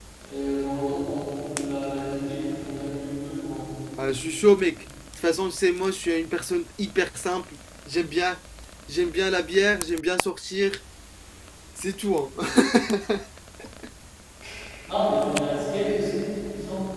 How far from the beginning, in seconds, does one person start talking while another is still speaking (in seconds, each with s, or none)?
none